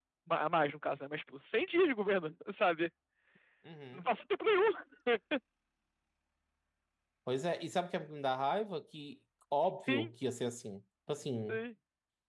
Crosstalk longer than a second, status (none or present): none